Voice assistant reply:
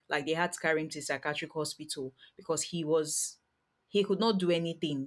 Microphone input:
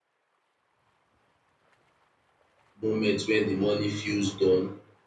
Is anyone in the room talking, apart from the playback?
Yes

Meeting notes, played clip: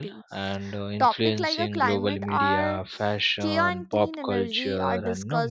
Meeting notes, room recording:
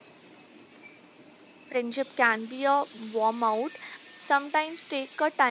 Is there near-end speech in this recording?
Yes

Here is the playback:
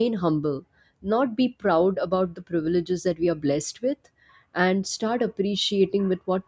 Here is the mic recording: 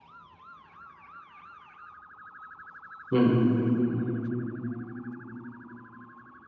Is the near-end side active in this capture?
Yes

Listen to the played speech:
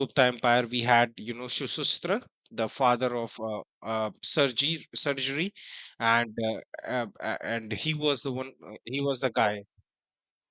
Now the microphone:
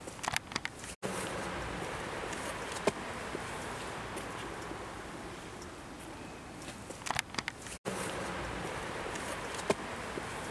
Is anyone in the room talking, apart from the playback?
No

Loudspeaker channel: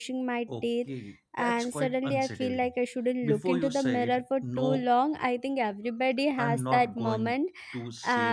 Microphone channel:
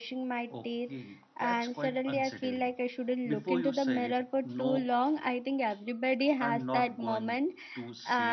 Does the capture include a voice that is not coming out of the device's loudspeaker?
No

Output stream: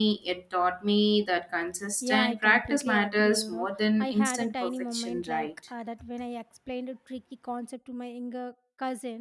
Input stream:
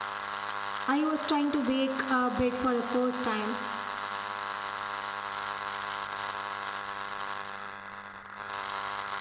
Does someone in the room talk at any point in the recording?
Yes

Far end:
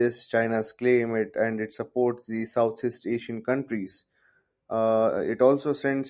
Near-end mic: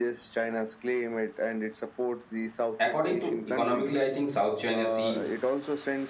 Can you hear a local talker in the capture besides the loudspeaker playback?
Yes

